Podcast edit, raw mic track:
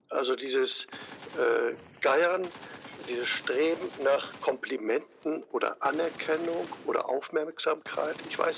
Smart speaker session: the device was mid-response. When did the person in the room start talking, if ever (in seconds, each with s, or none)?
none